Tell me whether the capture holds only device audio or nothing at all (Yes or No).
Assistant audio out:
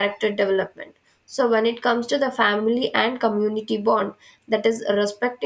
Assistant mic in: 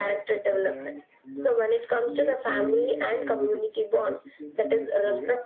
No